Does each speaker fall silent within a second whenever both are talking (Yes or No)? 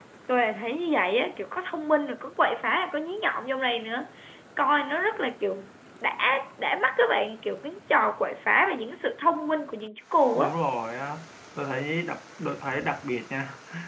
Yes